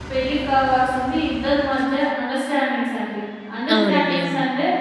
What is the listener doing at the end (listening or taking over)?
listening